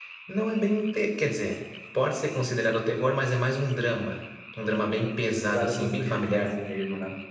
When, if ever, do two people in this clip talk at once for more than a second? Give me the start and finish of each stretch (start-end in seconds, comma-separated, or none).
4.8-6.6